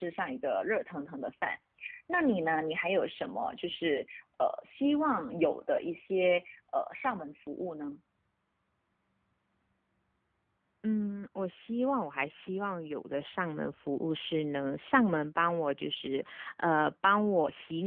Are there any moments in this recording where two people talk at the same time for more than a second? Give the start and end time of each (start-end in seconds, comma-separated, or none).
none